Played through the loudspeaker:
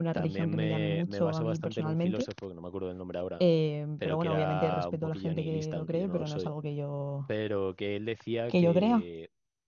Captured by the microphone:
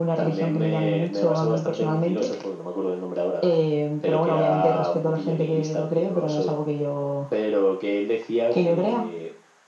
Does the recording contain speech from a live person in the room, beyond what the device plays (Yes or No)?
No